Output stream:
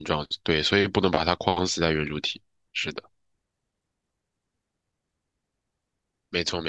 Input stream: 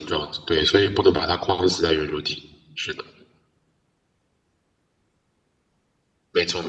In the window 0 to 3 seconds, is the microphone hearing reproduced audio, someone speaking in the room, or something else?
echo only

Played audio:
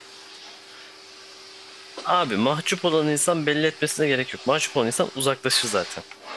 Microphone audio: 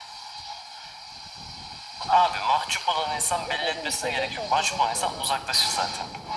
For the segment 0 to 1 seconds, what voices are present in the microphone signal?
neither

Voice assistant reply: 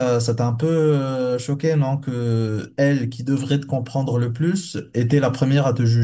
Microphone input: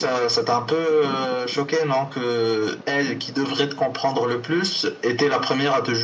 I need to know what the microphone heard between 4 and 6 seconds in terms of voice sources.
echo only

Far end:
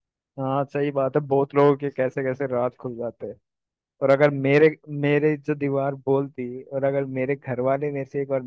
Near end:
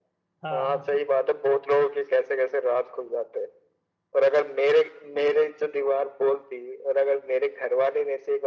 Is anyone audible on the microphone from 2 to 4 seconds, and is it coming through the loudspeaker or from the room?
echo only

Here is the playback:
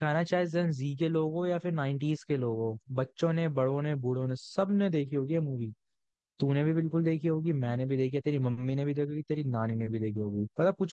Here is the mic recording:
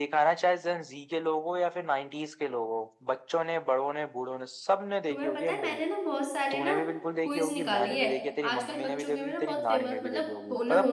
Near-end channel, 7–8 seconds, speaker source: both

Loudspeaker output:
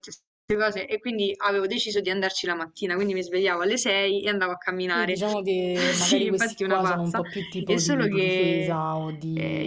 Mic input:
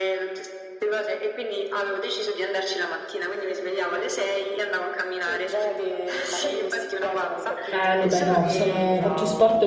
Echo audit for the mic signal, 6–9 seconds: both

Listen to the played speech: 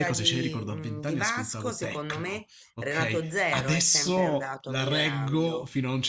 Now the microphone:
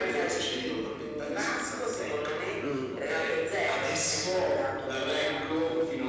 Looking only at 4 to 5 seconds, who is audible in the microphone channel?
echo only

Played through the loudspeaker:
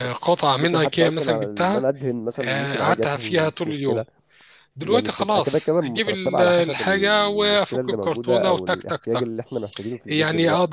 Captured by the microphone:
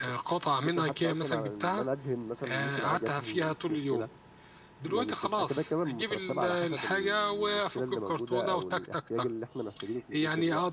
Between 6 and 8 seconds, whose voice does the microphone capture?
echo only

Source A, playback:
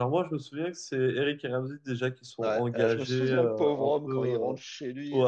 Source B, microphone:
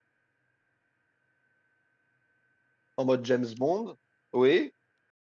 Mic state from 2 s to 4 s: user only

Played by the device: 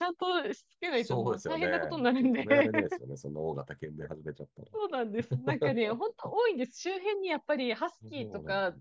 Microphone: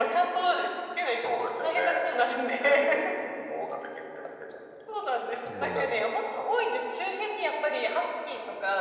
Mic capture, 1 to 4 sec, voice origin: echo only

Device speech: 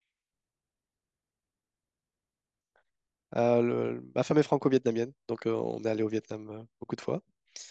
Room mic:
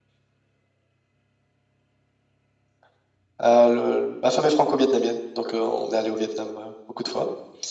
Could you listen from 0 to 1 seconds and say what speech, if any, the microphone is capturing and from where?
neither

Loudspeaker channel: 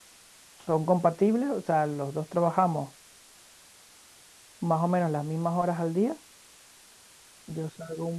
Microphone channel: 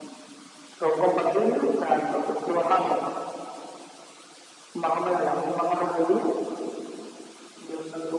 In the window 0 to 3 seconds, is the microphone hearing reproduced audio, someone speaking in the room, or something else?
echo only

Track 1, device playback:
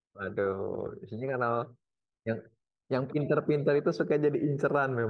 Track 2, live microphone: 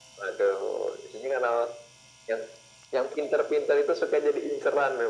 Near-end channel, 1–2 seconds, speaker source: echo only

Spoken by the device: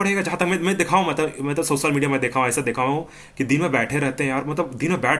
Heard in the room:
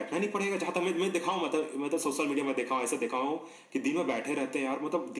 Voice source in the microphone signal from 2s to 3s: echo only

